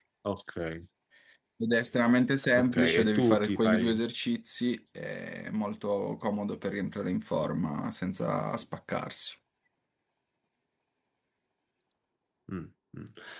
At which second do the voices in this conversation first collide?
3 s

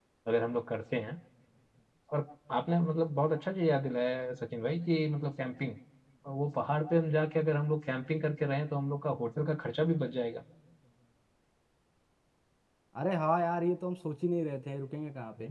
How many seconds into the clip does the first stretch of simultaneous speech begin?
none

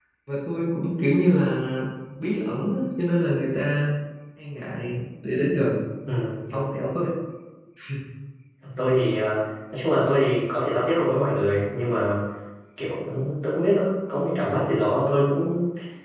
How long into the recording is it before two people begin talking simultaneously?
none

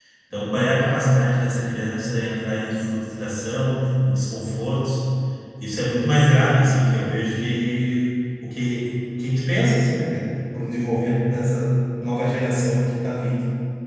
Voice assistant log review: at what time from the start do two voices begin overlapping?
none

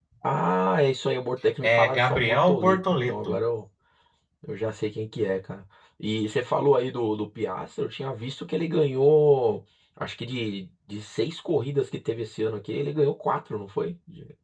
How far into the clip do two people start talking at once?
2 s

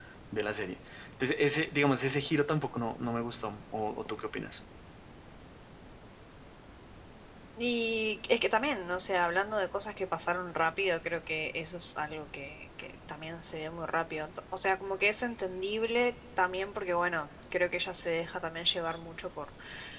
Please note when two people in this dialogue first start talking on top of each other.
none

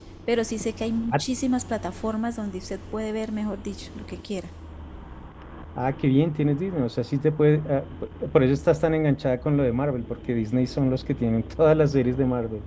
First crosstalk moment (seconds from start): none

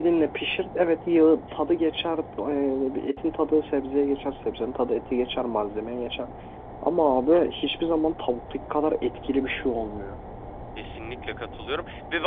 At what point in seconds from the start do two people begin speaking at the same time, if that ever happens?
none

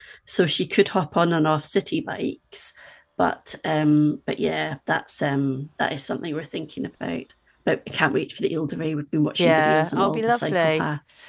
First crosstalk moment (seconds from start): 9 s

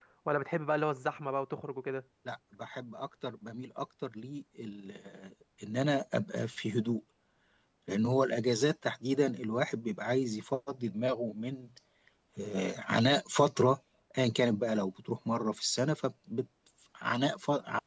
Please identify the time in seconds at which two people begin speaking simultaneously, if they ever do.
none

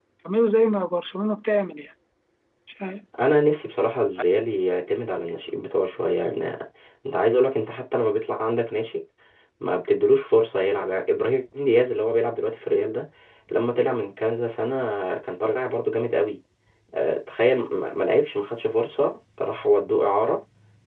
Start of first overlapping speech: none

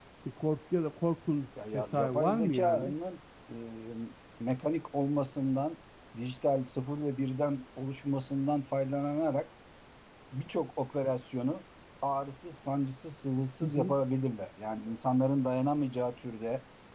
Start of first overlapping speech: 2 s

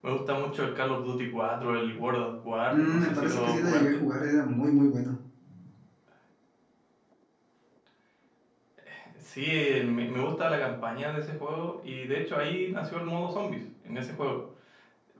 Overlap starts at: 3 s

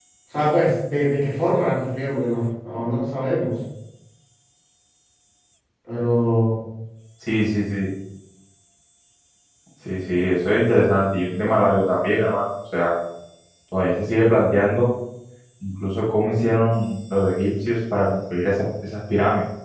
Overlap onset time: none

